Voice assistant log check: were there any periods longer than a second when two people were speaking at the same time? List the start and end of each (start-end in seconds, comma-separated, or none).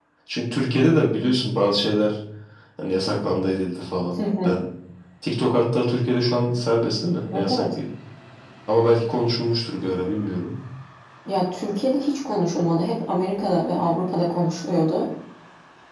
none